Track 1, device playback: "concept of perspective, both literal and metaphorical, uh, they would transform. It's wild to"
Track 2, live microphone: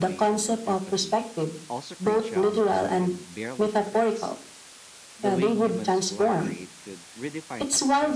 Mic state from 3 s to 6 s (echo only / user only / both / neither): both